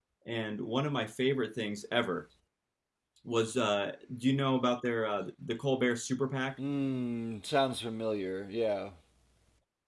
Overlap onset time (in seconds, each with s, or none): none